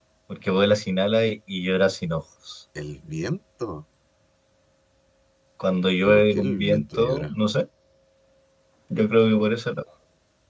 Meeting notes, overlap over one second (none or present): present